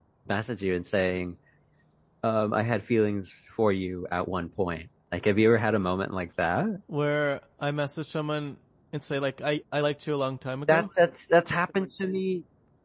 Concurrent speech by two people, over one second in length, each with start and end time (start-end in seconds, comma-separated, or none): none